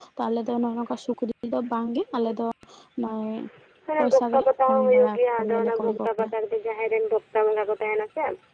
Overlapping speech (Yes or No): Yes